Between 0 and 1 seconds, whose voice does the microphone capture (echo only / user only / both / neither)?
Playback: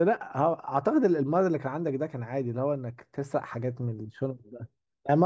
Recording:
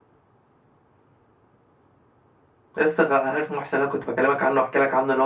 neither